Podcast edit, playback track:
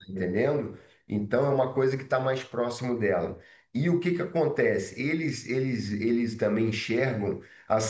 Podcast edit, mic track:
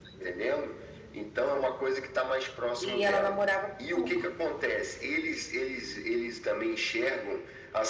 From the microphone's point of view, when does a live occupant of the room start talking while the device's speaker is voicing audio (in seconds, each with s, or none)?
2.8 s